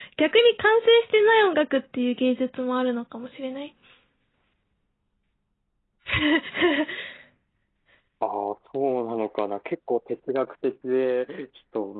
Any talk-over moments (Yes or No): No